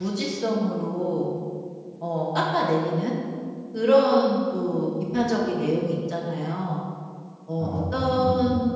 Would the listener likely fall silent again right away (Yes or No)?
Yes